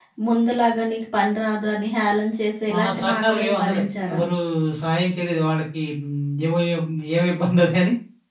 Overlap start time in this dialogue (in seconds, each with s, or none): 2.7 s